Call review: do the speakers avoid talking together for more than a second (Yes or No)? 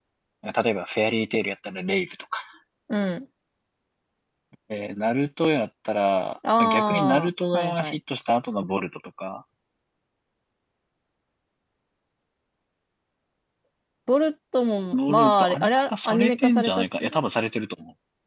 No